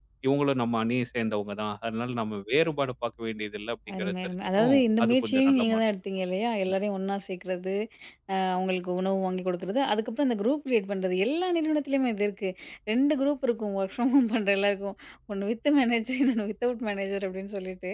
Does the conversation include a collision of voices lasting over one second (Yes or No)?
Yes